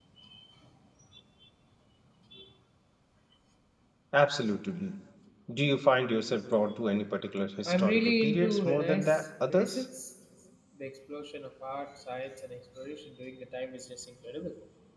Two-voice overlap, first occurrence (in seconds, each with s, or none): 7.6 s